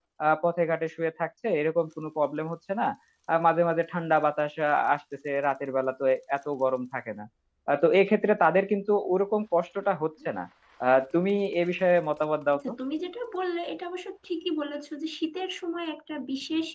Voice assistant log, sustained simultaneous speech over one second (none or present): none